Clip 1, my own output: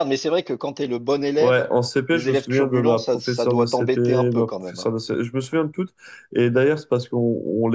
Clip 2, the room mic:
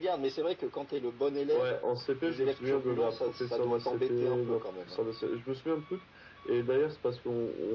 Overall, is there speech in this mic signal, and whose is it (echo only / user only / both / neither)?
echo only